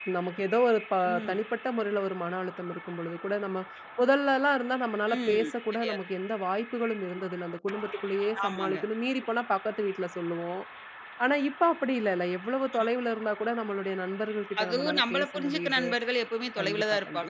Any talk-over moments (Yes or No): Yes